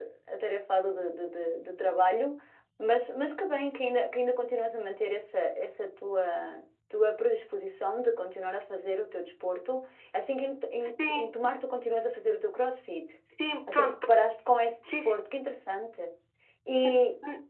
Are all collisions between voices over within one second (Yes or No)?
Yes